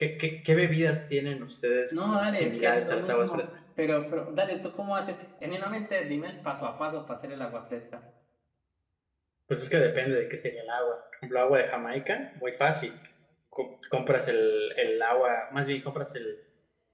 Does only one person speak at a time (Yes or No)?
No